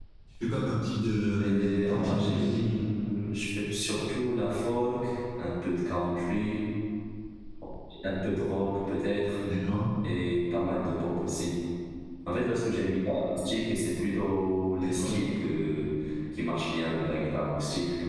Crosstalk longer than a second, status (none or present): present